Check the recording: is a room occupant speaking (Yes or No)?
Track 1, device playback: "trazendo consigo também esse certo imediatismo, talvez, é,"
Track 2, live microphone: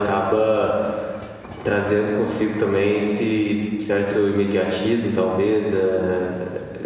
No